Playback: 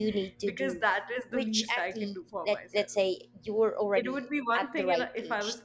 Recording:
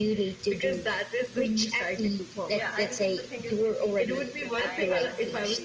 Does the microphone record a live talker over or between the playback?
Yes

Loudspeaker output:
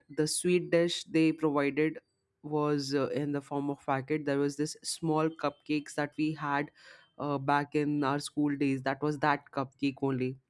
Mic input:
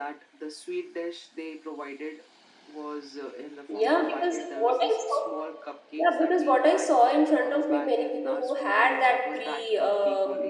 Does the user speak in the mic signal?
Yes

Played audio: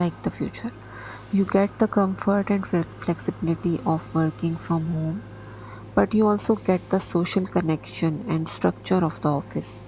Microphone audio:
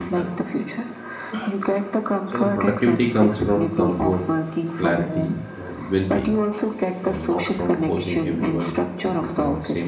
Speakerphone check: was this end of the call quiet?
No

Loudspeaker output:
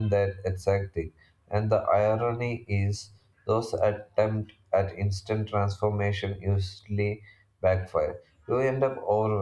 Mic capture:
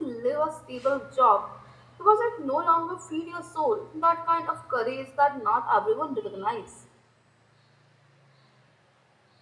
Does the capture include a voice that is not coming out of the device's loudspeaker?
Yes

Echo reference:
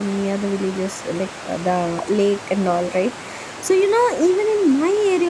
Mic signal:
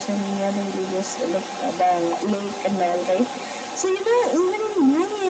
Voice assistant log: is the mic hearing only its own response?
Yes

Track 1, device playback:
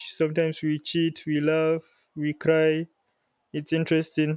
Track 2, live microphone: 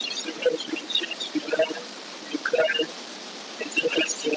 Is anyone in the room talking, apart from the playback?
No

